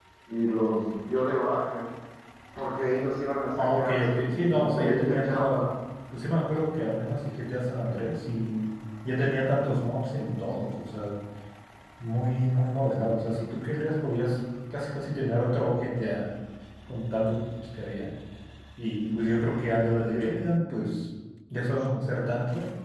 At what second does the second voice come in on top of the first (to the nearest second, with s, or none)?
4 s